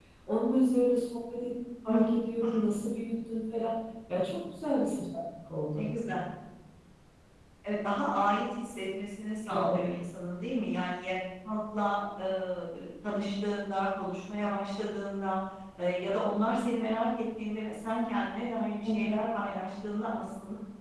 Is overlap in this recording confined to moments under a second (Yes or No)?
Yes